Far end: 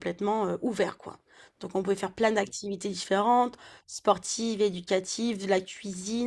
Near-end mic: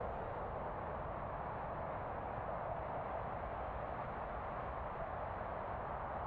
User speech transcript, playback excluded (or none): none